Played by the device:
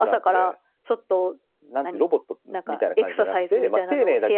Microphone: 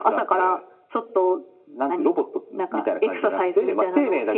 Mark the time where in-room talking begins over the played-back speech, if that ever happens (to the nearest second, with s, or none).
none